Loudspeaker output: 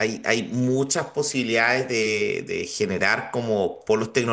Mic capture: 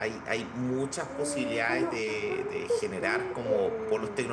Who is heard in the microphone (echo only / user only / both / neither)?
both